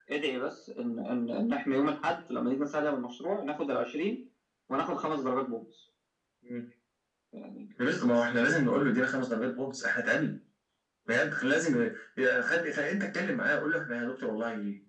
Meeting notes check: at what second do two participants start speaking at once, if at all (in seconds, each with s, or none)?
none